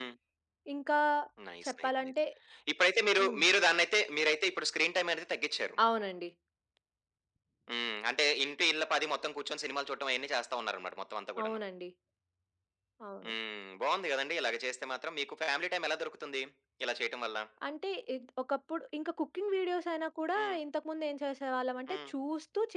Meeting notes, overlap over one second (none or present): none